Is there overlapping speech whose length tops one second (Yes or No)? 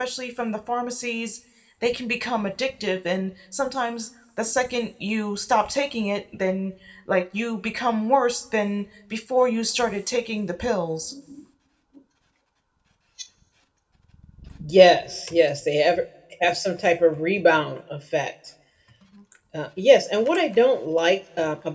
No